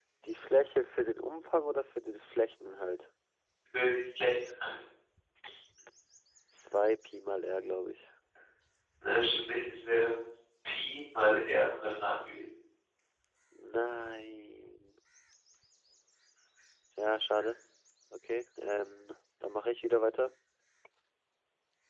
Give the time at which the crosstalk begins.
none

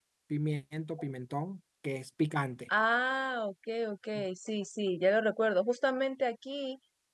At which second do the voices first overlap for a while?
none

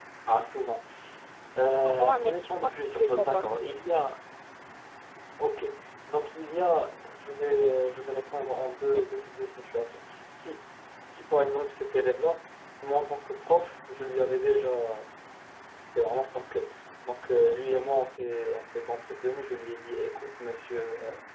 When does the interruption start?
2 s

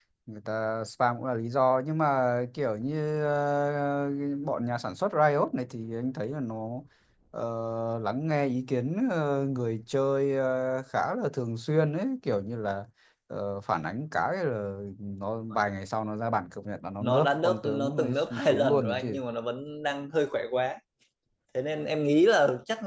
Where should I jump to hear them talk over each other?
17 s

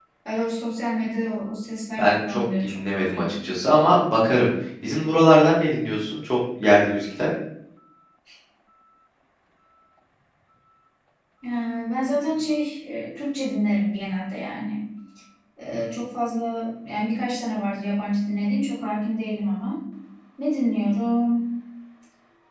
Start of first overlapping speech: 2 s

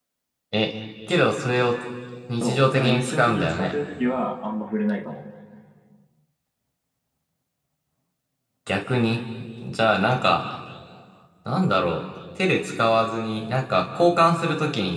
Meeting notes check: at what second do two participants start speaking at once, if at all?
2 s

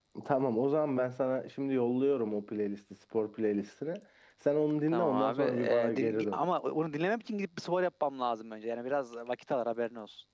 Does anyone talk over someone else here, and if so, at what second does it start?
5 s

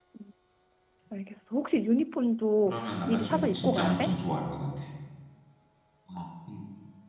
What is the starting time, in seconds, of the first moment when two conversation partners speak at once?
3 s

